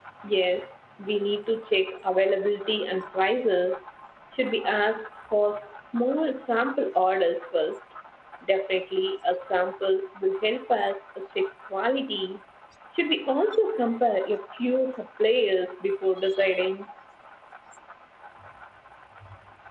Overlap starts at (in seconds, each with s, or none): none